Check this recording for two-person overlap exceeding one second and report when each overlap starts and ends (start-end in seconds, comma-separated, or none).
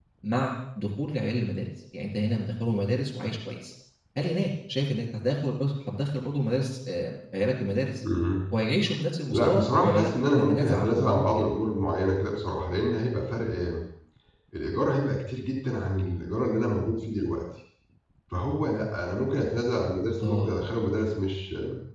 9.3-11.5